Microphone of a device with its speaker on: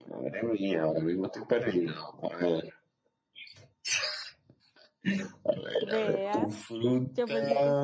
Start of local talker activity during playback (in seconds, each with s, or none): 5.8 s